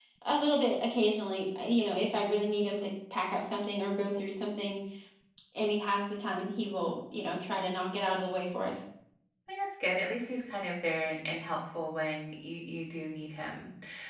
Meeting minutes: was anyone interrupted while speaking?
No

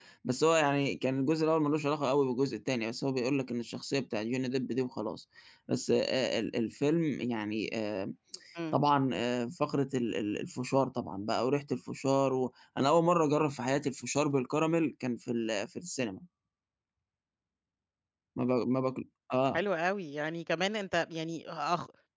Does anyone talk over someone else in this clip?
No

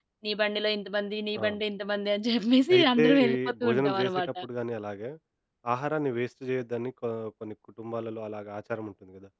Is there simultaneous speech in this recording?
Yes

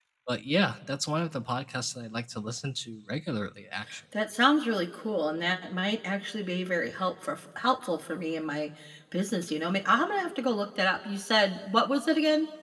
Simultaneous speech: No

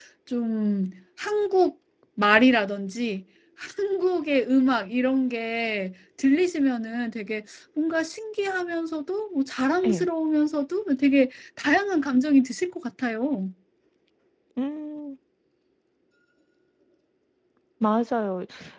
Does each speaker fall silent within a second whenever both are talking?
Yes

